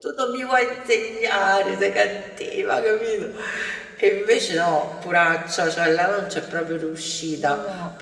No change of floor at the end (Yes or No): Yes